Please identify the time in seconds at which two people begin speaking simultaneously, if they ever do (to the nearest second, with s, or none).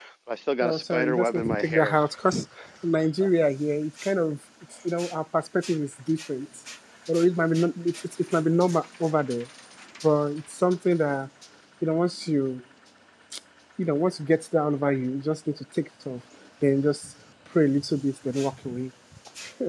1 s